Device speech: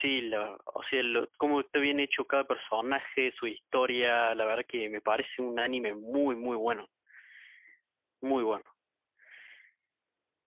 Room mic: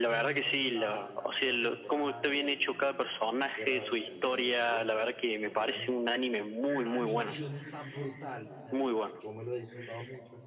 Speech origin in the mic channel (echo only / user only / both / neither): both